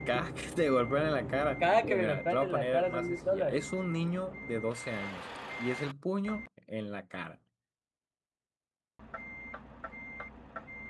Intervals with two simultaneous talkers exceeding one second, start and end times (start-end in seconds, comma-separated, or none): 1.9-3.6